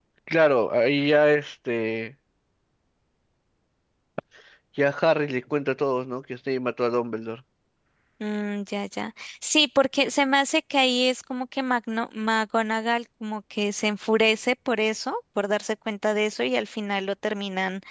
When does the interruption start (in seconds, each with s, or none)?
none